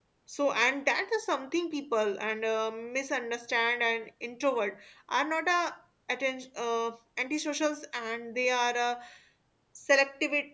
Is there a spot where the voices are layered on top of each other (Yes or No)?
No